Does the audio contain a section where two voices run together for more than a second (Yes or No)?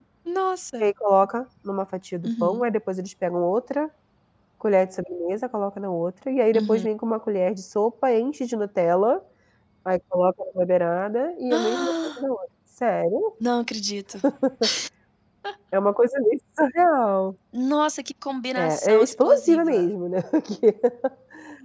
Yes